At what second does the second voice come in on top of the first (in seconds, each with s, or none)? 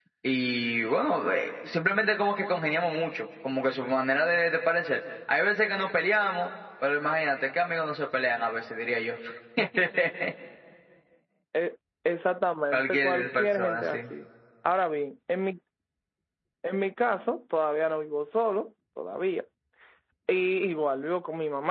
12.7 s